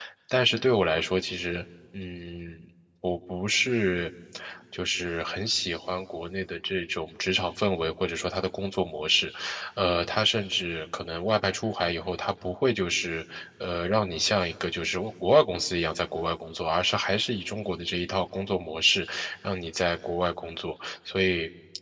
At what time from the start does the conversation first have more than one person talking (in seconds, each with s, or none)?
none